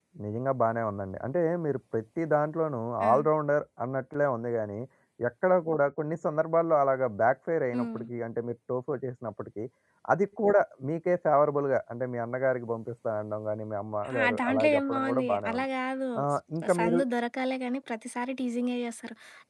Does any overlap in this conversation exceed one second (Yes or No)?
Yes